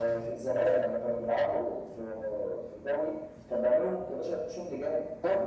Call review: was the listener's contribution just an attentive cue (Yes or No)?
No